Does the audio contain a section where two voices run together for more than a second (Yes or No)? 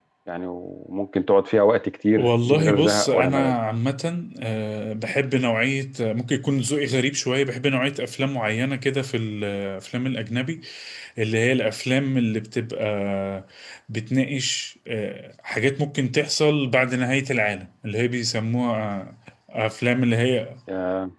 Yes